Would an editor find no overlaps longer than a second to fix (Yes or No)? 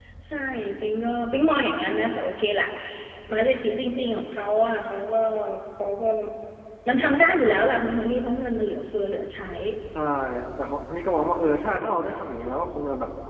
Yes